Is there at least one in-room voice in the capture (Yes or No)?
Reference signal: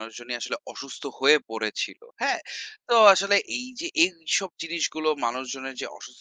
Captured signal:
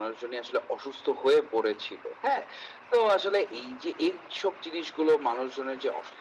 No